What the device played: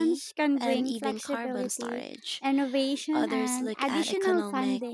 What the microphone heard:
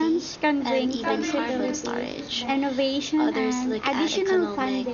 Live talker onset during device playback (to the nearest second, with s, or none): 1 s